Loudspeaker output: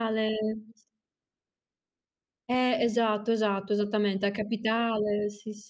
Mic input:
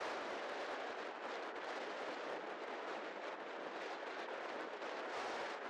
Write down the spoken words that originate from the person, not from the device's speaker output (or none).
none